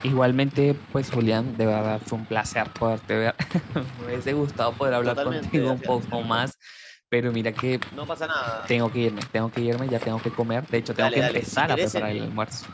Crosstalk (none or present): present